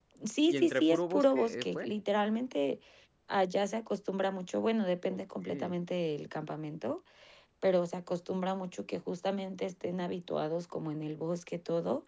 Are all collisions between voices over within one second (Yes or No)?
No